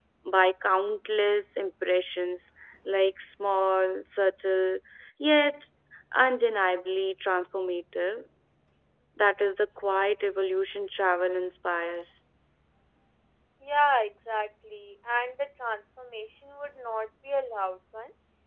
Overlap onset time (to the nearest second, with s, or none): none